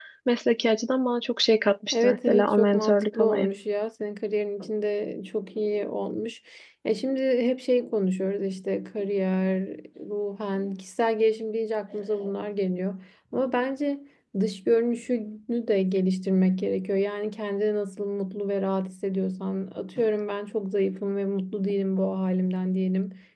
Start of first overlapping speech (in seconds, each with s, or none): 1.9 s